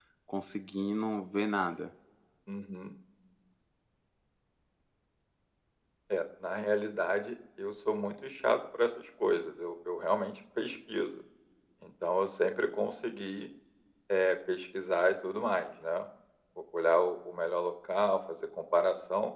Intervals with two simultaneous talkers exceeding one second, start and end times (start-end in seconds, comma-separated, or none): none